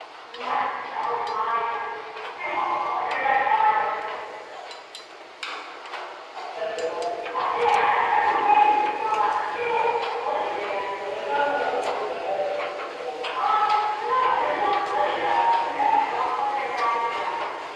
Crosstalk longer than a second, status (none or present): none